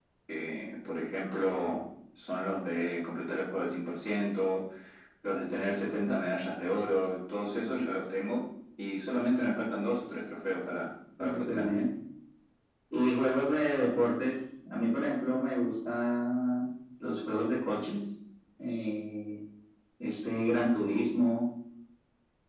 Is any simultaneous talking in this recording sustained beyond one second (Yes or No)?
No